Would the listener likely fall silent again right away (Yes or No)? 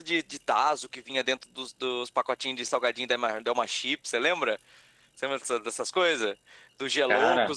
Yes